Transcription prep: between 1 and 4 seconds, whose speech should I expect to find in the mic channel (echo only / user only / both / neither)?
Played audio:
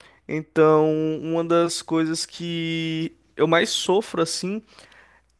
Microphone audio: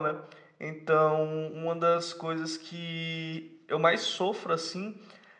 echo only